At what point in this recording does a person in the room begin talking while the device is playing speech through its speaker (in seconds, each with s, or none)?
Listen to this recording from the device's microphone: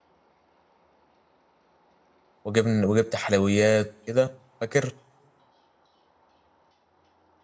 2.4 s